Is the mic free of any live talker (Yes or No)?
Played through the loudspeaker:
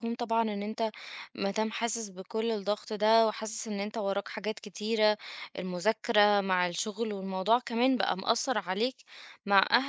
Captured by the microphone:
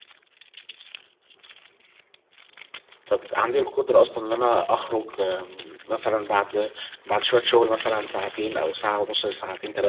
No